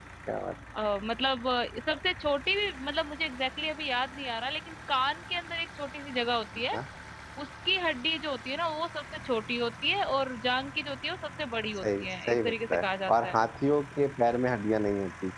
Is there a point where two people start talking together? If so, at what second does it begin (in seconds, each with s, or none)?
11.8 s